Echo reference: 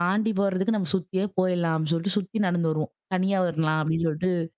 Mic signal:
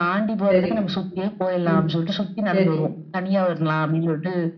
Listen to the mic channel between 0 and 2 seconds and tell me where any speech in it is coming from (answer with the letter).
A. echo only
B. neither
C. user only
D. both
D